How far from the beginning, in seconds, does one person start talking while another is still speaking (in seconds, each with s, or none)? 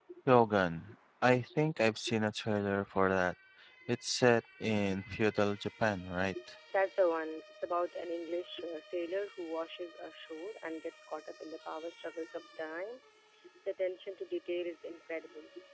none